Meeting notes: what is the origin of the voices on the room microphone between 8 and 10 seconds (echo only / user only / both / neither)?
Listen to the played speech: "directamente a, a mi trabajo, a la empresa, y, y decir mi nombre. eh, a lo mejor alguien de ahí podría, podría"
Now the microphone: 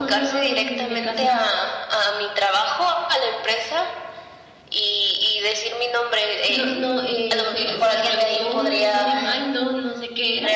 both